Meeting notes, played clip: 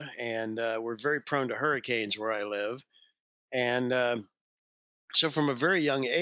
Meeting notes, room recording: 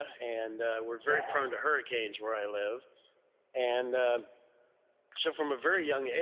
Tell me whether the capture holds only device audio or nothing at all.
No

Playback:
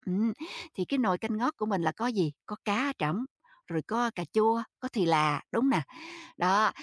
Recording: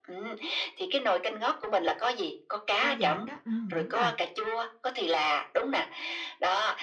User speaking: Yes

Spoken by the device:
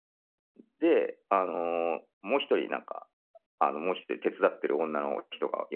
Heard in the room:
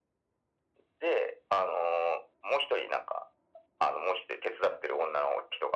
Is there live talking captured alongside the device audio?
No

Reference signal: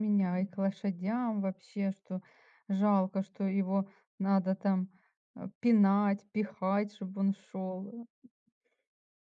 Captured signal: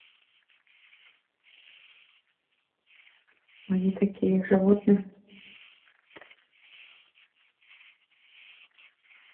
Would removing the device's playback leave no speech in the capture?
No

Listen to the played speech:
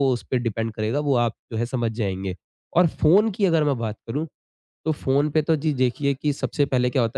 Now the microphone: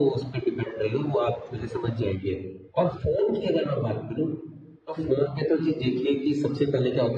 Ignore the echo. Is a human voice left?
No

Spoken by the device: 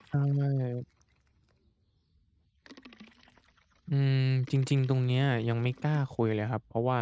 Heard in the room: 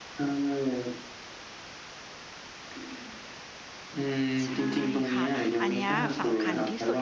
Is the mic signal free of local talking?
No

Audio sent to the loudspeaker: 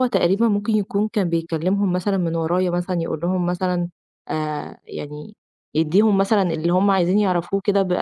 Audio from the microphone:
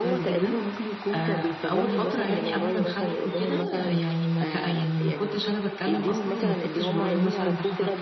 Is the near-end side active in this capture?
Yes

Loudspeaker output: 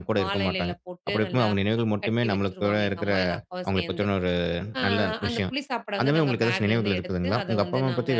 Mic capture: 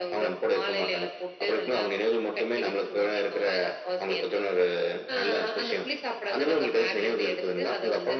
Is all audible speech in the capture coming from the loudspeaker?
Yes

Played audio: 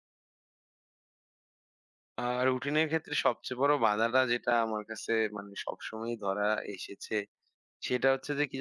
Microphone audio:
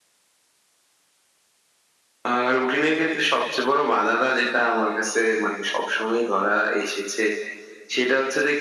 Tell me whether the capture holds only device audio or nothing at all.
Yes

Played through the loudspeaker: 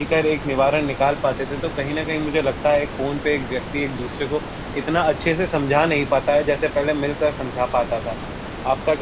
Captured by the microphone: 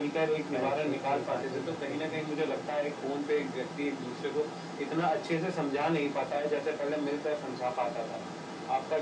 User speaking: Yes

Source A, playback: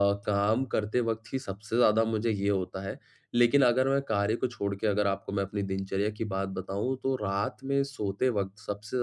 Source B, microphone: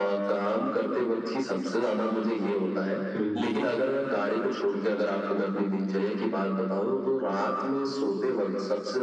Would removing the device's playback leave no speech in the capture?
No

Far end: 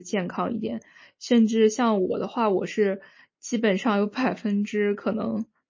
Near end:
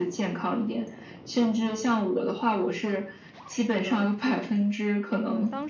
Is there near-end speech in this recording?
Yes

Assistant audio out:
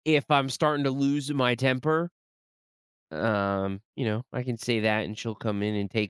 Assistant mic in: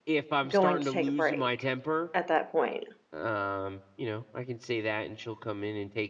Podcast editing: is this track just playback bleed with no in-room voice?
No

